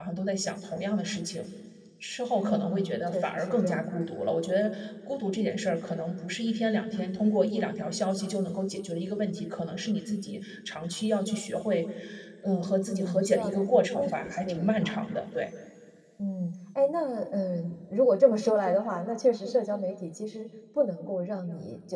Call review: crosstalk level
present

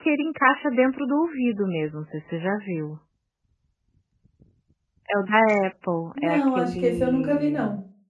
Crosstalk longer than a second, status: present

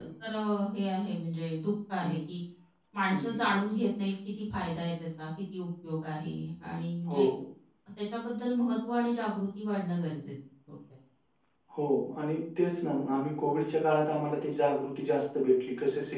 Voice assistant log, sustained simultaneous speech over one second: none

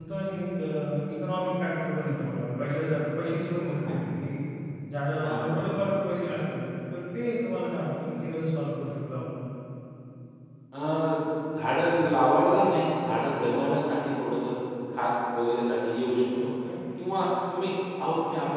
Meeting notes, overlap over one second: none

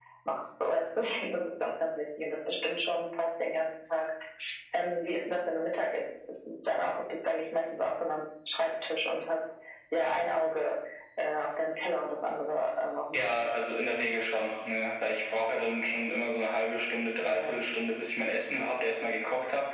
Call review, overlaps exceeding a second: none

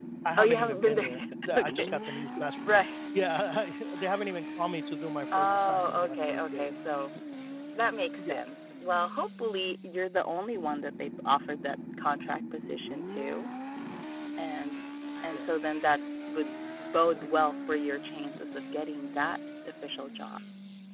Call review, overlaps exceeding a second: present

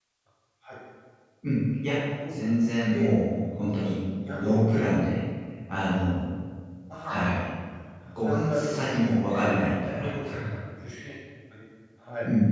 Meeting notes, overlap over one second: present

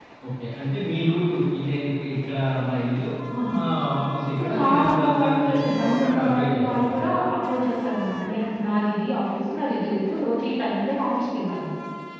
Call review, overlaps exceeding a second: present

